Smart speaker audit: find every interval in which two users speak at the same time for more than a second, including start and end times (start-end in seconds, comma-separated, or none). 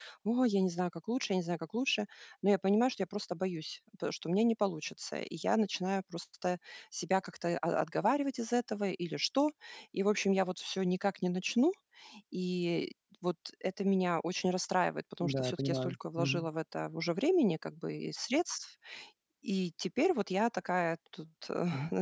15.2-16.5